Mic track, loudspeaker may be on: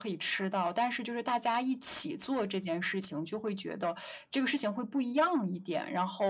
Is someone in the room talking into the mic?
No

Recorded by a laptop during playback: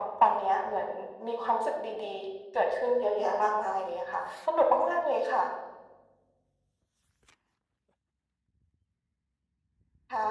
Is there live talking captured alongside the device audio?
No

